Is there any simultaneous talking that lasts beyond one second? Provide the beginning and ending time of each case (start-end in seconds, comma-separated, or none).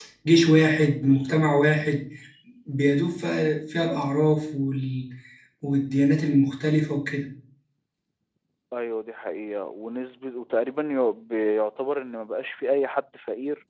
none